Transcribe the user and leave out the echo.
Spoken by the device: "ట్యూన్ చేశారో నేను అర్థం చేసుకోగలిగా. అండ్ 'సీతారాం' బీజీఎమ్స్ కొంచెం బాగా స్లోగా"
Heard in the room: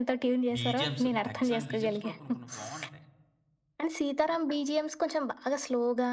బీజీఎమ్స్ ఎక్సలెంట్ బీజీఎమ్స్ కూడా కొన్ని, కొన్ని బావుంటాయి.

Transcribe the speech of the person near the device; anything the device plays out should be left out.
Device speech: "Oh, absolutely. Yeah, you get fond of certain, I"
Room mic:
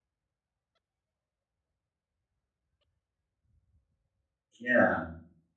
yeah.

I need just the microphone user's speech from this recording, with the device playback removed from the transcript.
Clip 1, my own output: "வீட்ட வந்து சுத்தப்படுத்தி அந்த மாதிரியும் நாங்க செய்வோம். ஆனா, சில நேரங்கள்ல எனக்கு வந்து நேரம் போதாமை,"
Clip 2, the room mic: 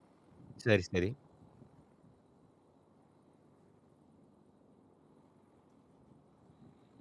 சரி, சரி.

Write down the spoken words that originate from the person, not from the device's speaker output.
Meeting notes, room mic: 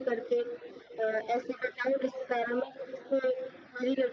none

